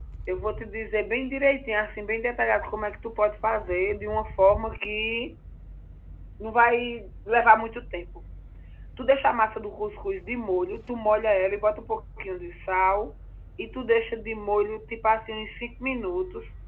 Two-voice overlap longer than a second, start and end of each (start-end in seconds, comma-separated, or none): none